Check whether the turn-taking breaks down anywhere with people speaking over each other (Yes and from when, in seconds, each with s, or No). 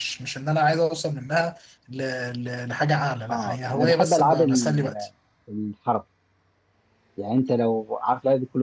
Yes, from 3.3 s